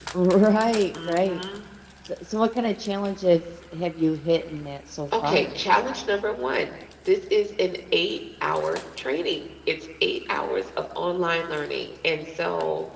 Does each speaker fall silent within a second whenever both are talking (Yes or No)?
Yes